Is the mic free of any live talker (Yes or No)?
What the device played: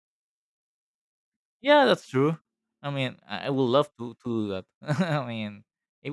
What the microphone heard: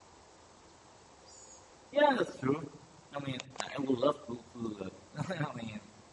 Yes